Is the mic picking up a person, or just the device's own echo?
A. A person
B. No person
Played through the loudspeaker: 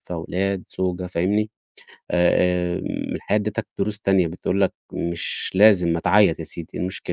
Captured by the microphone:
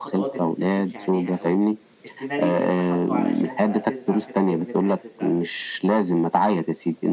A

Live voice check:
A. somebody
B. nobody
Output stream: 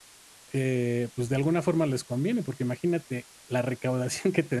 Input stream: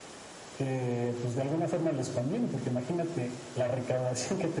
B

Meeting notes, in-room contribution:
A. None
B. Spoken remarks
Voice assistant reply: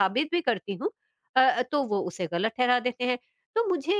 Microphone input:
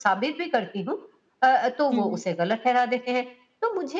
B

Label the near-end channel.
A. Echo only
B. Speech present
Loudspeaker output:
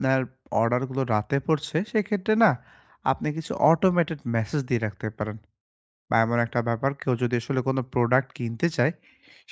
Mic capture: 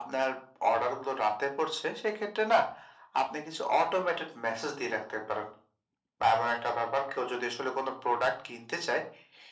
A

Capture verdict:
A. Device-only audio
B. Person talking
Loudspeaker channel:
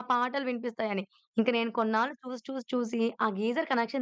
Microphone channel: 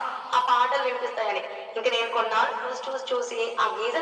A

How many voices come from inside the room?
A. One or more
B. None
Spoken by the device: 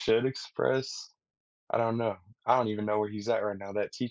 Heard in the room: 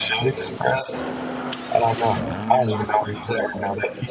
B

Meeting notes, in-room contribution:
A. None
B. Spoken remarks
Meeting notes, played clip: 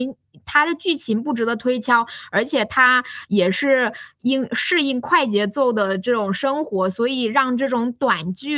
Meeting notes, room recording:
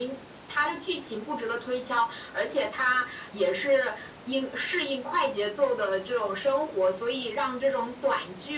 A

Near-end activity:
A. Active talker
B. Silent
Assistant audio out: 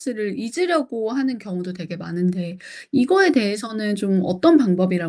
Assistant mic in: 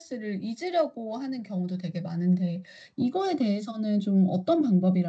B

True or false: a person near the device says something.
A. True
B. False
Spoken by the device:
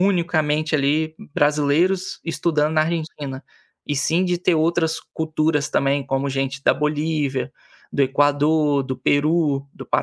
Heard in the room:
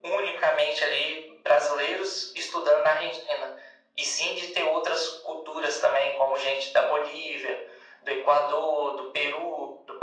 B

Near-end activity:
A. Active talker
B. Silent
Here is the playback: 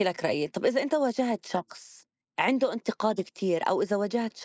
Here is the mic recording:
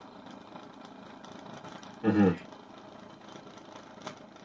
A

